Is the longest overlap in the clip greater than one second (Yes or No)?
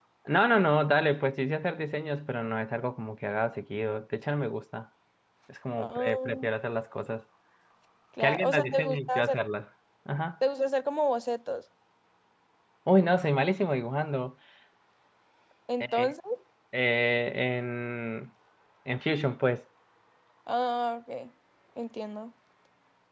Yes